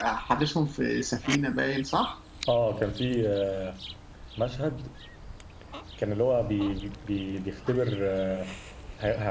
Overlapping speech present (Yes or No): No